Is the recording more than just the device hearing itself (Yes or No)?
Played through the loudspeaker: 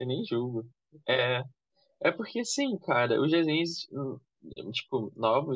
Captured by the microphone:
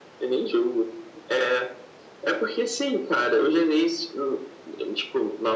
No